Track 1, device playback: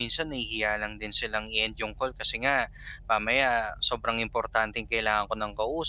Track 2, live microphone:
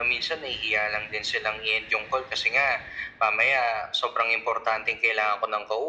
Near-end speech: none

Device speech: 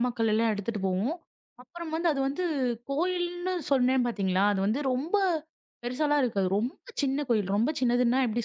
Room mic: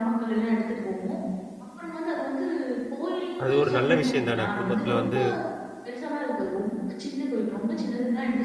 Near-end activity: present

